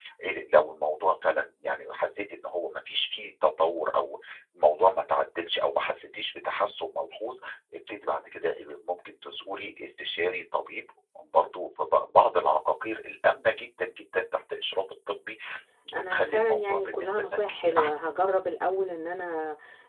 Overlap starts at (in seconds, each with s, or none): 15.9 s